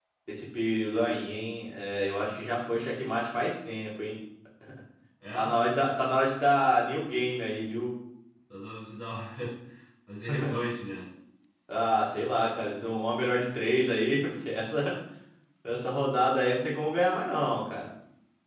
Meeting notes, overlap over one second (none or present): none